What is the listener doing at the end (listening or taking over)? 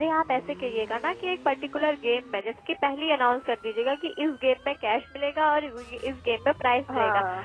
listening